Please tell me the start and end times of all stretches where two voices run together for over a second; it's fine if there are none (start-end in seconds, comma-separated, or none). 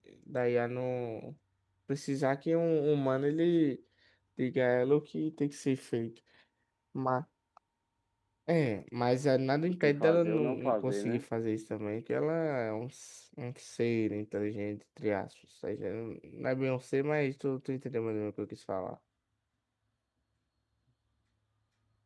9.7-11.2